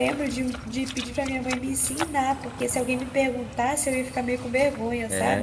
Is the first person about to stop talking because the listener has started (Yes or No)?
Yes